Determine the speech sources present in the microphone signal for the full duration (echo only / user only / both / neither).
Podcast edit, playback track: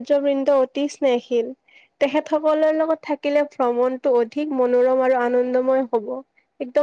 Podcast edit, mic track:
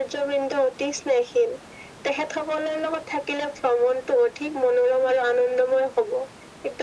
echo only